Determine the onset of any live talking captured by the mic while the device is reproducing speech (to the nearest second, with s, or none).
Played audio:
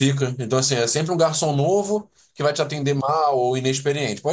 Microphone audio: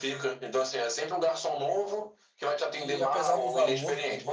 3 s